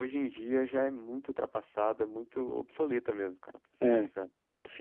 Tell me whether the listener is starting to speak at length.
Yes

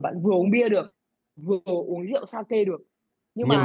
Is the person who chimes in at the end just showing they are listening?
Yes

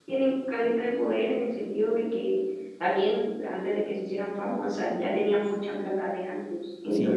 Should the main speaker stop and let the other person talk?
Yes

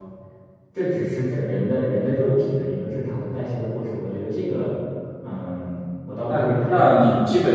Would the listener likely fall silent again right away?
No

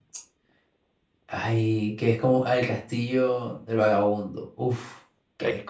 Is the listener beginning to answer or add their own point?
Yes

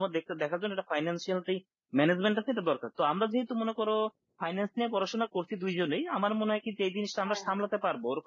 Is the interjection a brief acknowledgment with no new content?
Yes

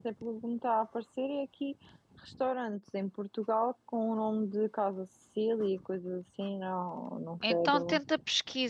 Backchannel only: No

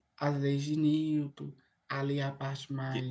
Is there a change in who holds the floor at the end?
No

